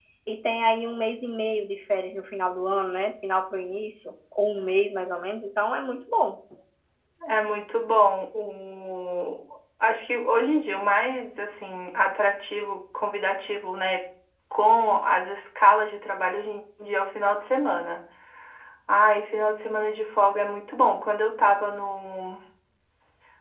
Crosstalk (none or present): none